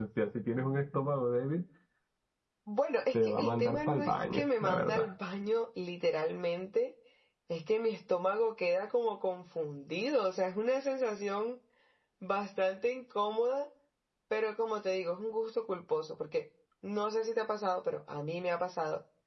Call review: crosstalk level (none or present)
present